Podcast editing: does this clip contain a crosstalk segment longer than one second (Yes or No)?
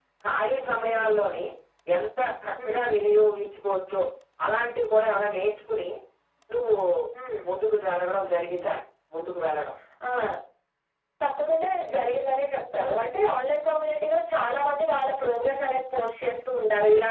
No